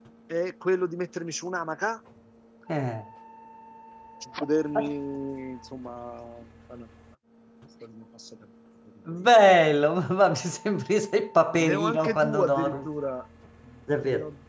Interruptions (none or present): present